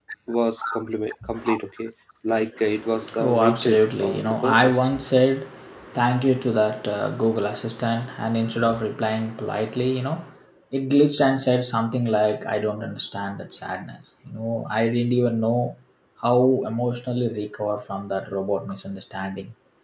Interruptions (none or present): present